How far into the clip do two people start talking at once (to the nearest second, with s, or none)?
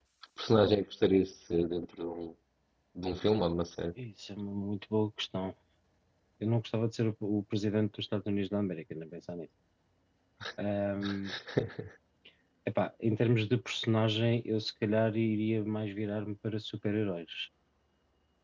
none